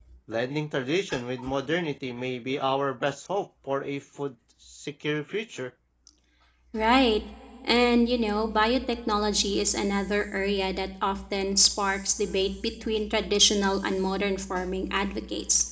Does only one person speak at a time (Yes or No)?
Yes